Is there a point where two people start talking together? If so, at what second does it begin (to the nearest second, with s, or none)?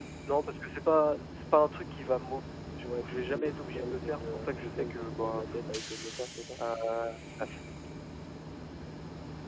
3 s